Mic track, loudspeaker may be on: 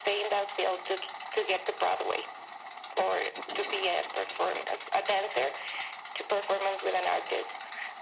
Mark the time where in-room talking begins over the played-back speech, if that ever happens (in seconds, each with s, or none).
none